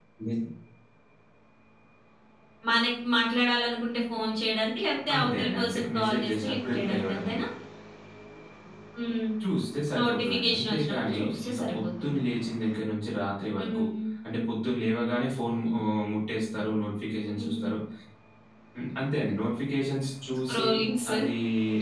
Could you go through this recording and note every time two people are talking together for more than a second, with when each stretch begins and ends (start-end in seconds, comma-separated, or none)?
5.1-7.3, 10.0-12.2